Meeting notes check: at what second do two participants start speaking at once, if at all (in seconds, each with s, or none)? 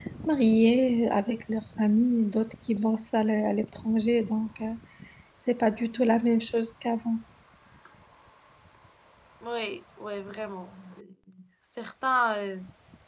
none